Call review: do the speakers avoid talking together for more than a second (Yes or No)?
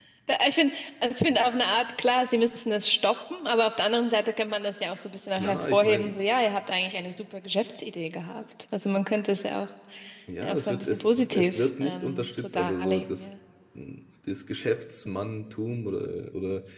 No